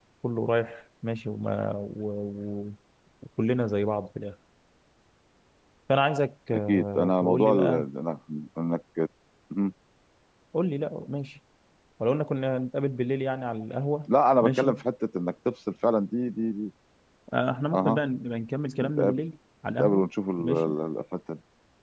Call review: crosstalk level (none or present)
present